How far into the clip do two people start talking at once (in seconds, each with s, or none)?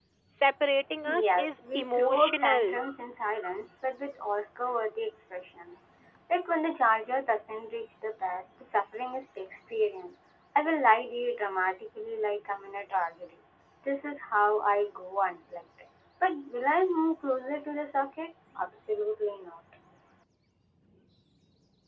1.1 s